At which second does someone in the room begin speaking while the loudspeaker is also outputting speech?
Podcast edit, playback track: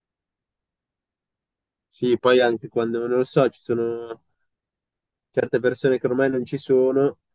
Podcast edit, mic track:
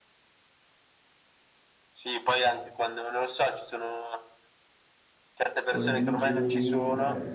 6 s

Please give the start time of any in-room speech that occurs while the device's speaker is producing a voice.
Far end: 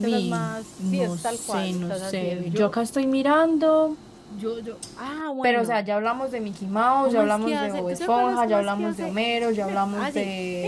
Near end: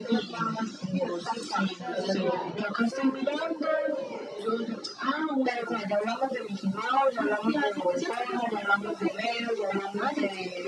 2 s

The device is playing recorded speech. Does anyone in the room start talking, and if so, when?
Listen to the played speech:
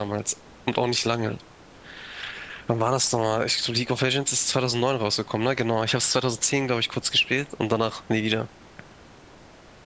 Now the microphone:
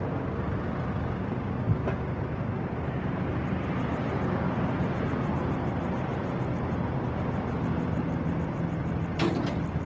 none

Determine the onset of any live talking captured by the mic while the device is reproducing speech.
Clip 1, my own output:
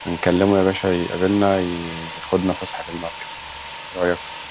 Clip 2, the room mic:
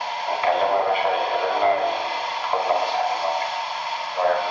none

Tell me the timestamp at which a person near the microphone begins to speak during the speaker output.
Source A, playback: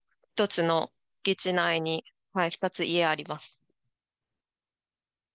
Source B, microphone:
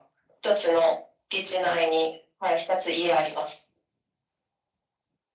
none

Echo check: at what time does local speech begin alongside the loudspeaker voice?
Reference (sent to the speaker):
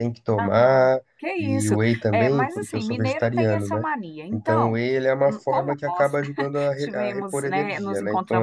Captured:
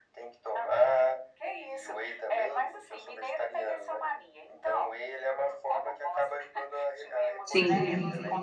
7 s

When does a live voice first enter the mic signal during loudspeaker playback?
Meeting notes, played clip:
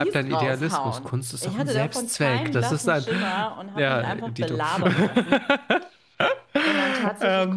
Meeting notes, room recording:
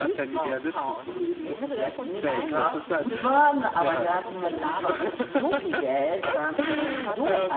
1 s

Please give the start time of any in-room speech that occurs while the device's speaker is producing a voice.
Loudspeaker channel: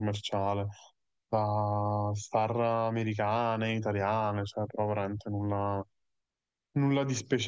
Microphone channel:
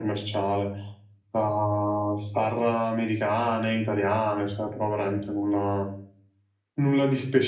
none

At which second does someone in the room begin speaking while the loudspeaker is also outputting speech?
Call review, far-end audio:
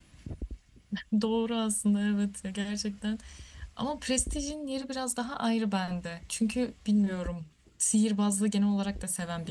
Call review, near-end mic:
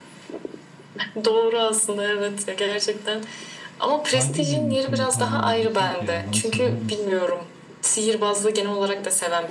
4 s

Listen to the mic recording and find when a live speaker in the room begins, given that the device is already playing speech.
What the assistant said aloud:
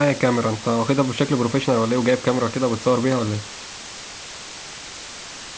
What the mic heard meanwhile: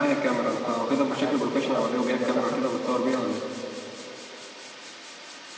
1 s

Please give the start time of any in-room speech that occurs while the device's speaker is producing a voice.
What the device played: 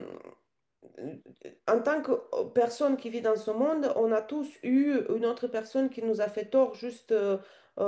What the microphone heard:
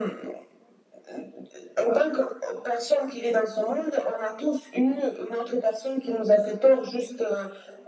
none

